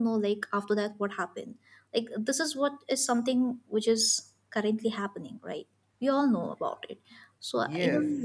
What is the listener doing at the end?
taking over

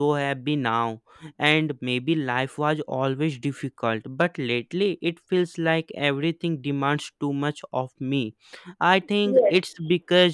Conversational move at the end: listening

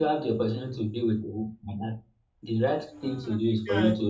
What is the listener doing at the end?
listening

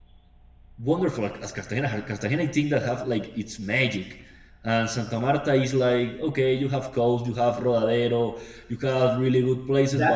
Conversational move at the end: taking over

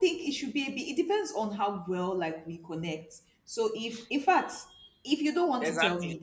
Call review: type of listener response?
taking over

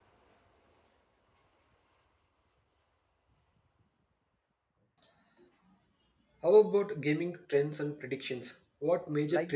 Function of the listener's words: taking over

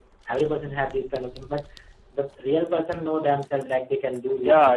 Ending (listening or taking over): taking over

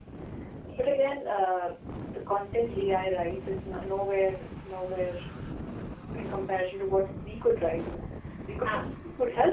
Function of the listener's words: listening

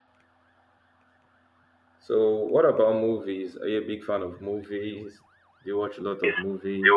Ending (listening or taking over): taking over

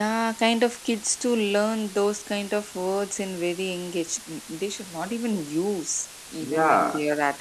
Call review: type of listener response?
taking over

